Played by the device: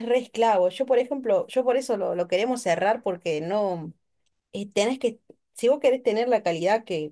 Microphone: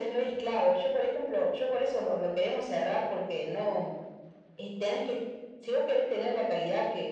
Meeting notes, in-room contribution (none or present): none